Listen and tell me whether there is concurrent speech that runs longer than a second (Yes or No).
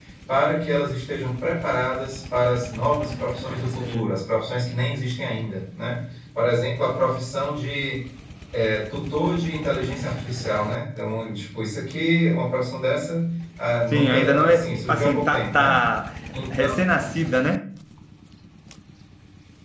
Yes